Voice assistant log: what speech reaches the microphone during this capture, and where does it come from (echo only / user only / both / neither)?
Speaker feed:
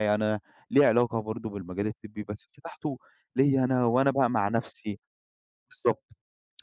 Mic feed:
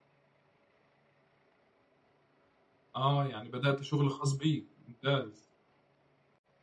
user only